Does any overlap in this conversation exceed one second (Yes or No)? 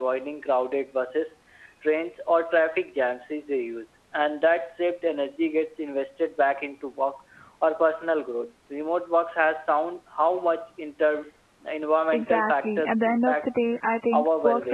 Yes